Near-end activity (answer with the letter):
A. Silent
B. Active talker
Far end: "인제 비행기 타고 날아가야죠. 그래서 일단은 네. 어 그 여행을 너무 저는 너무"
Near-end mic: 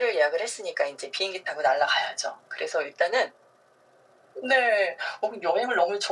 A